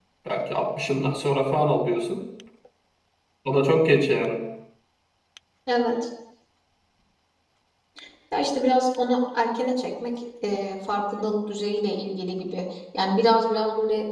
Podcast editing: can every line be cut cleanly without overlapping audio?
Yes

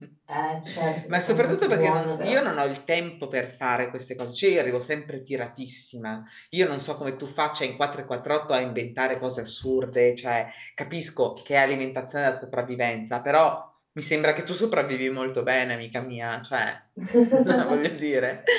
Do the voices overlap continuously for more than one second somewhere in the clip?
Yes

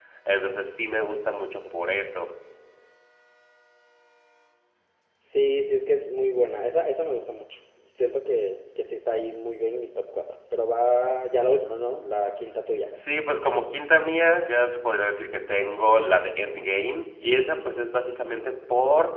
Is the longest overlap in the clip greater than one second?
No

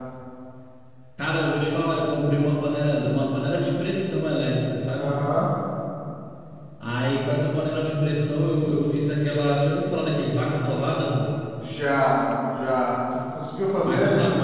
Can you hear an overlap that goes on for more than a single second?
No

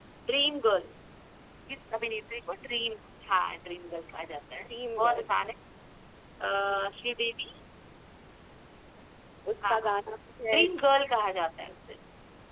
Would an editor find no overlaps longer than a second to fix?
Yes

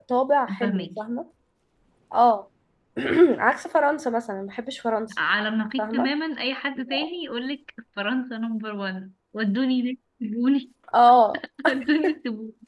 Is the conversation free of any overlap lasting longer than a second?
Yes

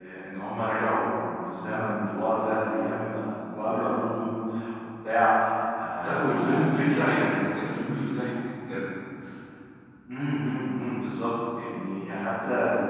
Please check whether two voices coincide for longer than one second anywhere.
Yes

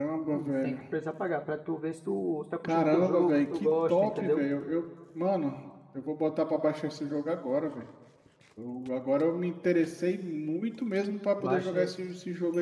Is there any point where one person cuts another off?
Yes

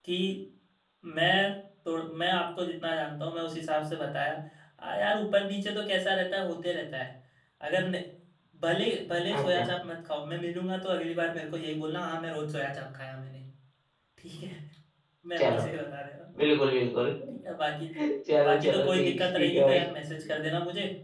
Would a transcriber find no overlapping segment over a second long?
No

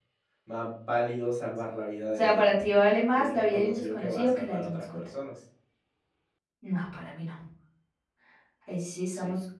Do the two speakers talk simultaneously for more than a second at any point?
Yes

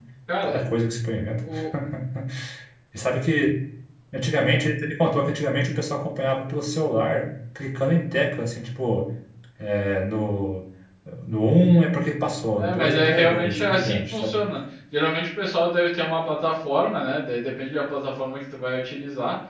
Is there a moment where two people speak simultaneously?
Yes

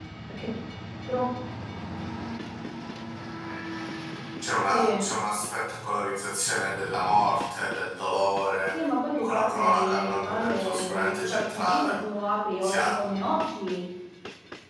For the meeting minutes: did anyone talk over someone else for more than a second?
Yes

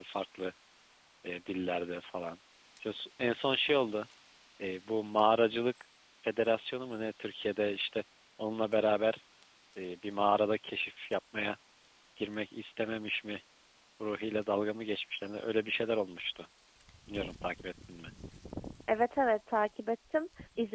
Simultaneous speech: No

